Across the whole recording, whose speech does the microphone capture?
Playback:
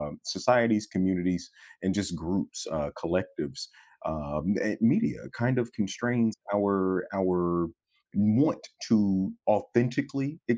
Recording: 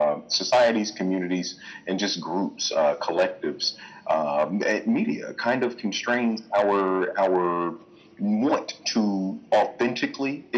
echo only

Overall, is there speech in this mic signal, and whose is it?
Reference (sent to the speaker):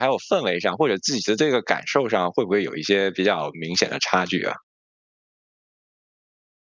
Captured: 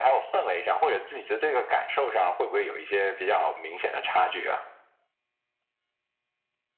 echo only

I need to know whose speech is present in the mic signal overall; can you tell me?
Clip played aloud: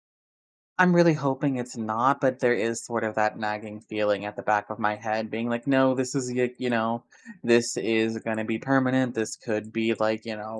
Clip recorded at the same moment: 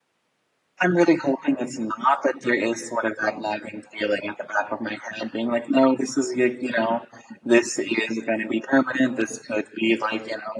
echo only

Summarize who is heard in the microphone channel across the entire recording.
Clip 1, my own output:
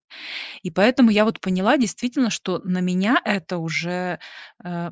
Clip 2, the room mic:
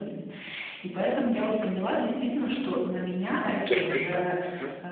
both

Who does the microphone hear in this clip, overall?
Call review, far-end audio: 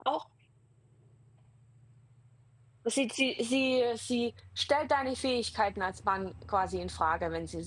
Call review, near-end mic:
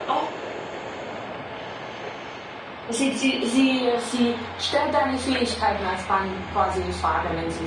echo only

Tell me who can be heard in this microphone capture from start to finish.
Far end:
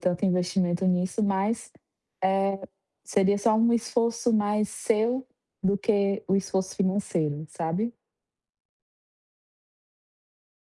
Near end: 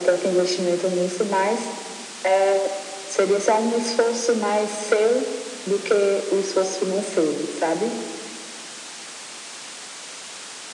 echo only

